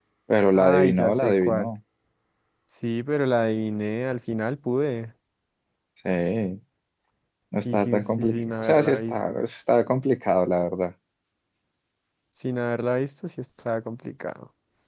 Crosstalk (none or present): present